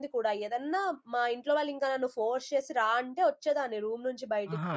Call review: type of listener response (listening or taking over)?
taking over